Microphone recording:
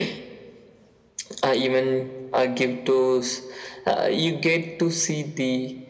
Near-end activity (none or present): none